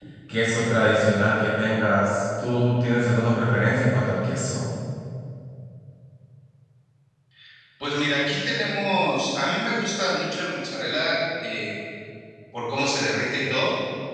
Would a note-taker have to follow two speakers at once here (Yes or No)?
No